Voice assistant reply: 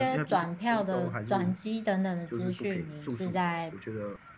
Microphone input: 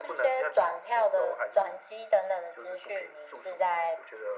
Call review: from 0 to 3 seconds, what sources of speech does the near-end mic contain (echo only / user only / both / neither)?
echo only